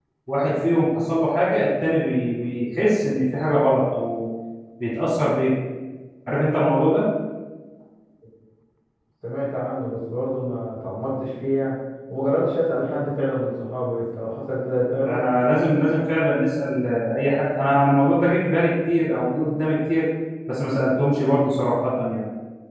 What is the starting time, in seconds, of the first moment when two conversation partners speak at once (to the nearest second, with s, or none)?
none